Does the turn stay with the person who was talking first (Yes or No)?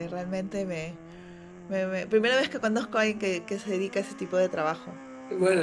No